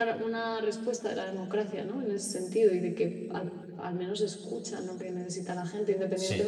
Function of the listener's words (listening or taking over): listening